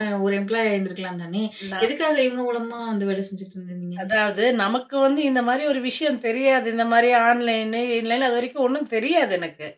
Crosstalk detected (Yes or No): No